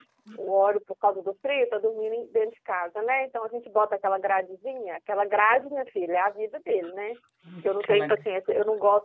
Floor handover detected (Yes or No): No